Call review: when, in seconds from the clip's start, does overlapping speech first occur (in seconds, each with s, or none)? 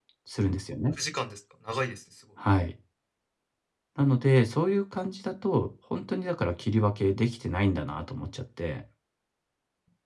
none